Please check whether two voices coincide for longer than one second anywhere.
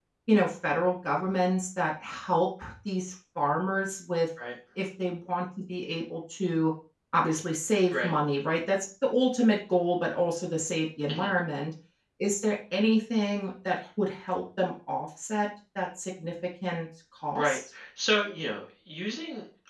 No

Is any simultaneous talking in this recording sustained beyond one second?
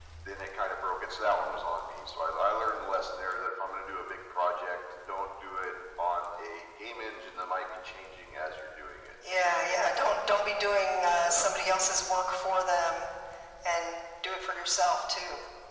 No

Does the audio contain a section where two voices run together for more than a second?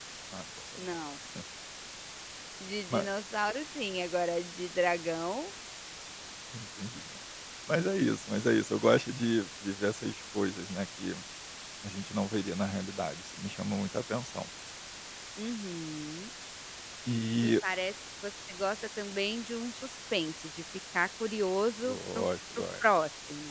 No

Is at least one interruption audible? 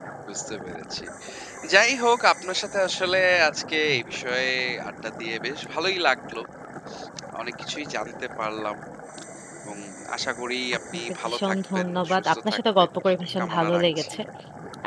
Yes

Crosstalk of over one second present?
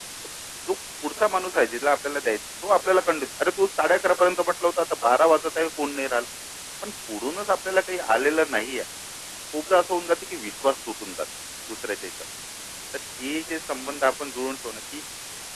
No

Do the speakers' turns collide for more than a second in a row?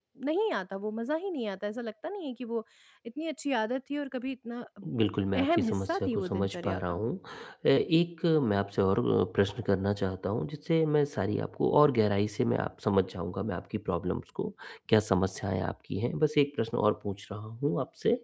Yes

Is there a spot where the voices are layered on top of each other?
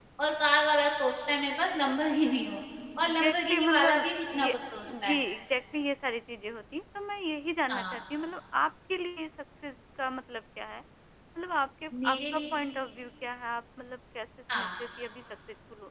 Yes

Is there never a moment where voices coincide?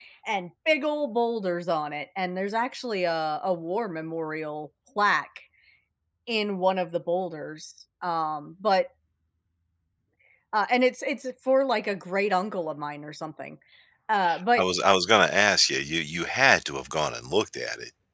Yes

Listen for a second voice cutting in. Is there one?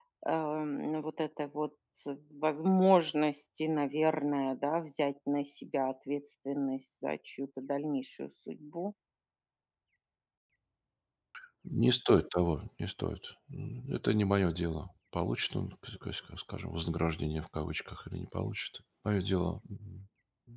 No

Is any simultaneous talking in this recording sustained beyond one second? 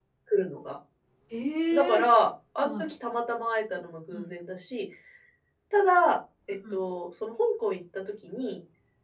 No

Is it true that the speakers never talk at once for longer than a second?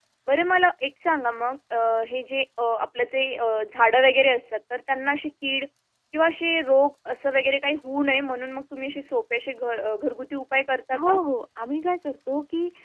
Yes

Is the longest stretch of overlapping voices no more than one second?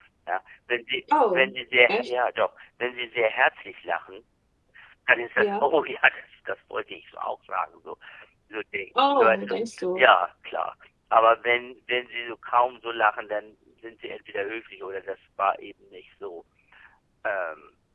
Yes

